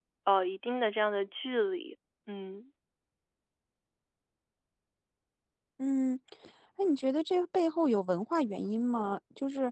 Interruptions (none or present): none